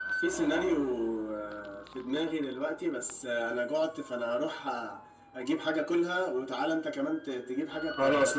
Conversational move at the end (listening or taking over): taking over